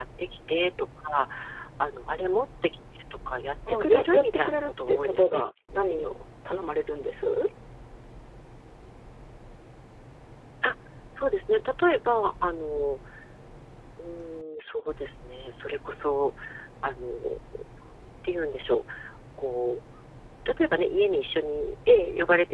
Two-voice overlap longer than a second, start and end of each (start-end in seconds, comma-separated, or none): 3.7-5.4